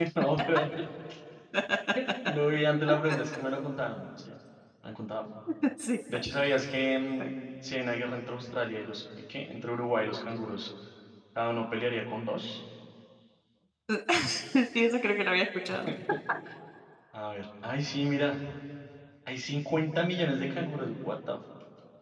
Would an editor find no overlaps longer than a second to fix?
Yes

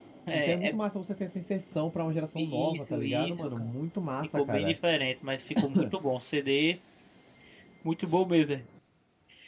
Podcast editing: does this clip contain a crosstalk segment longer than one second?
Yes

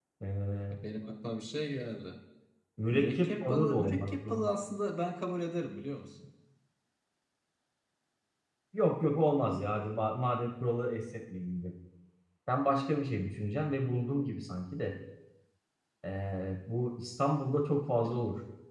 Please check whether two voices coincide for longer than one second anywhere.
Yes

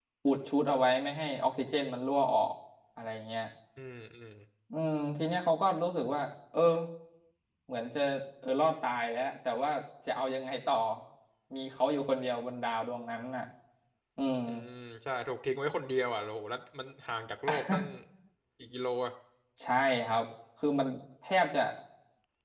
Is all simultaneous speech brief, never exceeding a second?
Yes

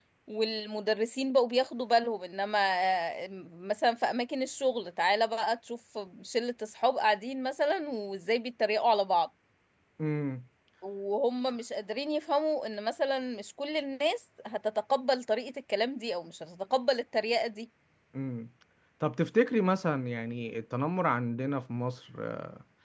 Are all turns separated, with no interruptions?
Yes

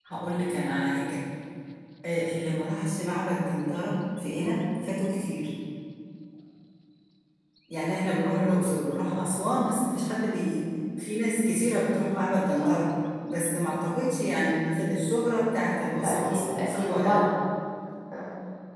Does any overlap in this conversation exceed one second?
Yes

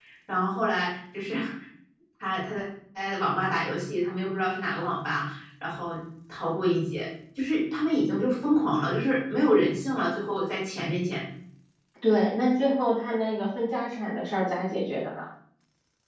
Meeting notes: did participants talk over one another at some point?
No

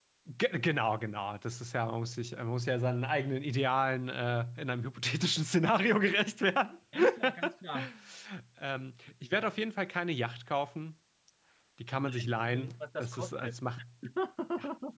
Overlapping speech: Yes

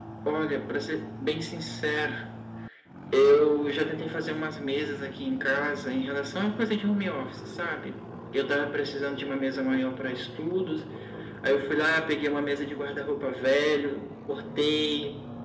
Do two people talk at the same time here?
No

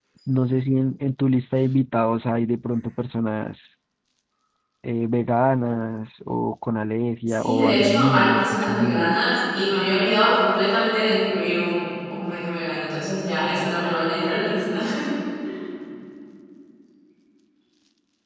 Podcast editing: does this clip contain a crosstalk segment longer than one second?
Yes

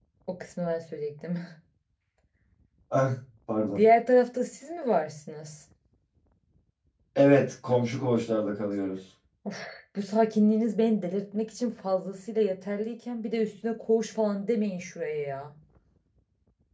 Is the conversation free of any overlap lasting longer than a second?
Yes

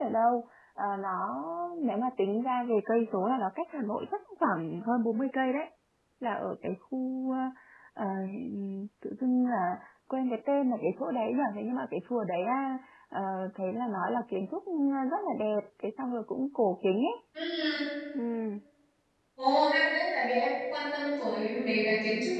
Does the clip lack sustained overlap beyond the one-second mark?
Yes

